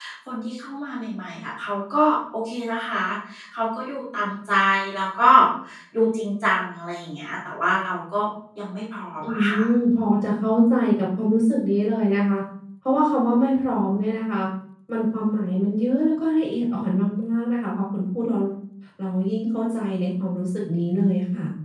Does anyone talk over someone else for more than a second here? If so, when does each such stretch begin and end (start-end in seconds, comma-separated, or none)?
none